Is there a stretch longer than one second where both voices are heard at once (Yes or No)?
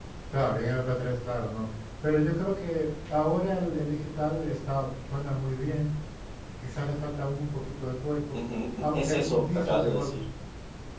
Yes